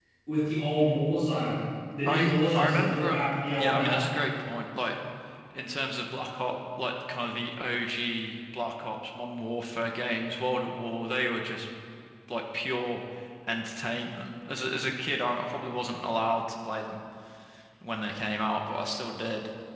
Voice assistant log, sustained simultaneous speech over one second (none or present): present